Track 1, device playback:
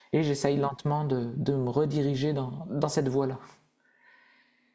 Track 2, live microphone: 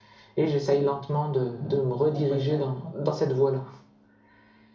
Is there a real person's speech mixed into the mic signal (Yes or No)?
Yes